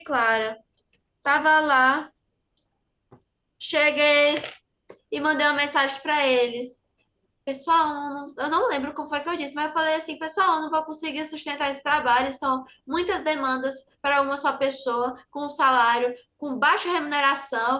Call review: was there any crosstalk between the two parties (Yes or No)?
No